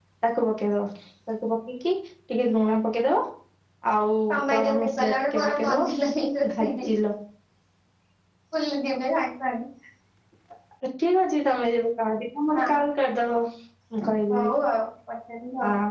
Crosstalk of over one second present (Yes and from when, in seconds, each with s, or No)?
Yes, from 4.5 s